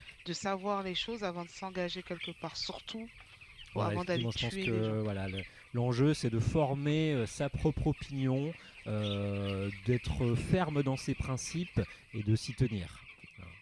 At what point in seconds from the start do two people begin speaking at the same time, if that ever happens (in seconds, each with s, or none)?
3.8 s